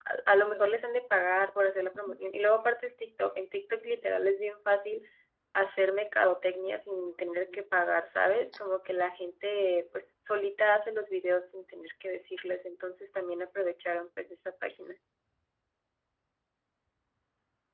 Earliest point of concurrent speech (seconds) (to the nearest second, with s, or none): none